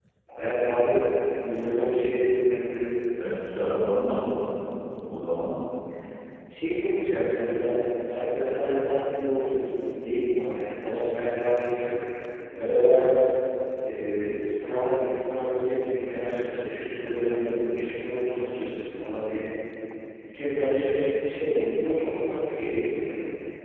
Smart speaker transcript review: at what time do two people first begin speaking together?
none

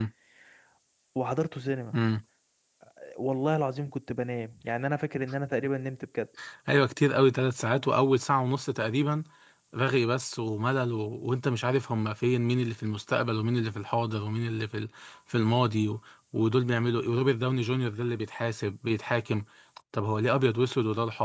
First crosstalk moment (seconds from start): none

